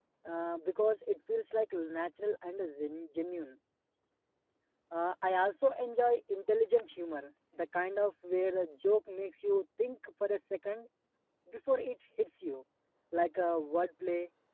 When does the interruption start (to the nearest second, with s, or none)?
none